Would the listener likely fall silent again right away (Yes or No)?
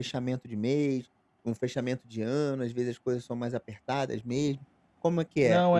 No